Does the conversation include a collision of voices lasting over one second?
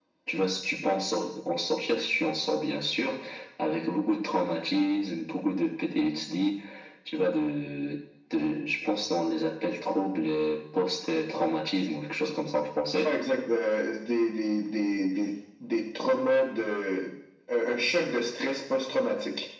No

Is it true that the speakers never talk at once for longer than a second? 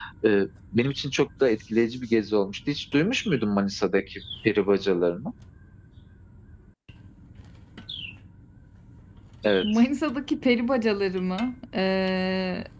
Yes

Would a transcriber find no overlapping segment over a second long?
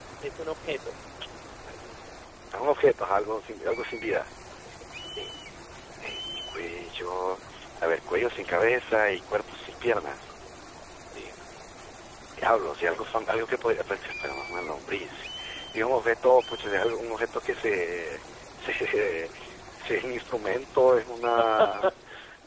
Yes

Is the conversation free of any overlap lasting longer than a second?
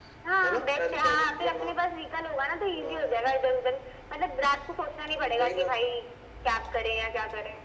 No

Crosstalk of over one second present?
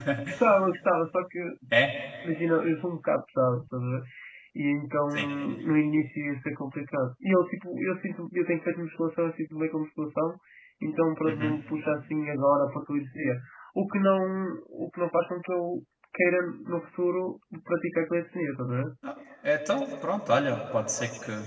No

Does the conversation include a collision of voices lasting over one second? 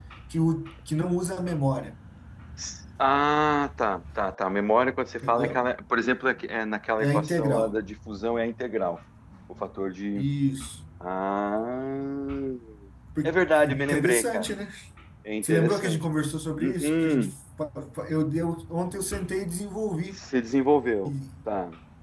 Yes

